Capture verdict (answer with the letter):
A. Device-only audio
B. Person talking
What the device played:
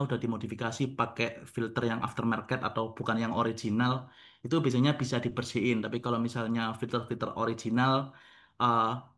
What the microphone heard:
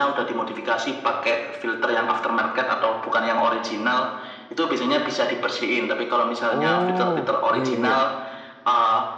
B